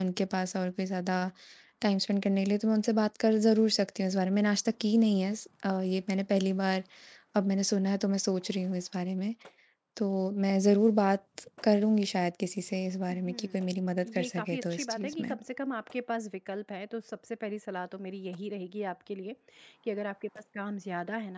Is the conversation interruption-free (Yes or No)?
No